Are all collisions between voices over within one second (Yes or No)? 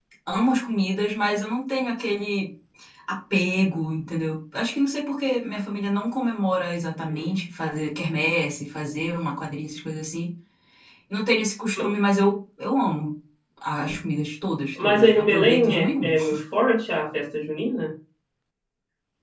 No